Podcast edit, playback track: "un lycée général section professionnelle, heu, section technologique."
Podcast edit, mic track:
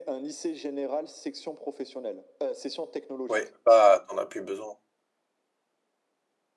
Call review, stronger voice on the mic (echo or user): user